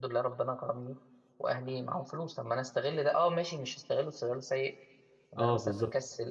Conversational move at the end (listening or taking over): listening